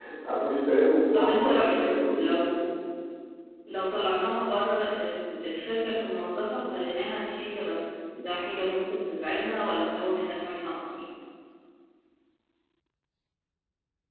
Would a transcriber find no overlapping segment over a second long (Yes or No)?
No